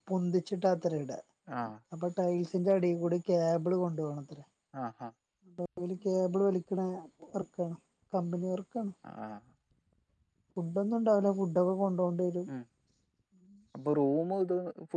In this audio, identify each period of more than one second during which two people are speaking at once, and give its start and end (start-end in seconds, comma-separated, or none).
none